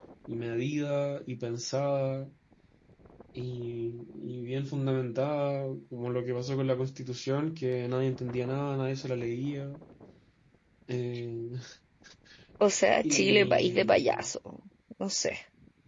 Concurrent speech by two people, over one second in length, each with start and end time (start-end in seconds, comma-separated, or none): 13.0-14.3